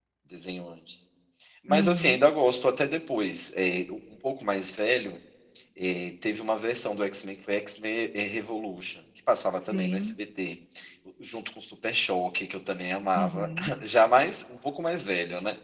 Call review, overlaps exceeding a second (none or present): none